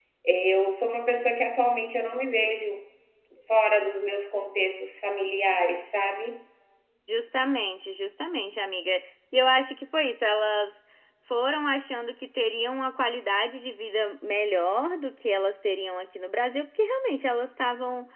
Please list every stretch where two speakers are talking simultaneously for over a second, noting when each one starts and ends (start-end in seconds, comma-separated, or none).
none